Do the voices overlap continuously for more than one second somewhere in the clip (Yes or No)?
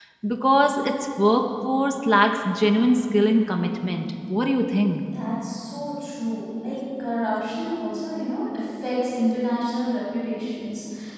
No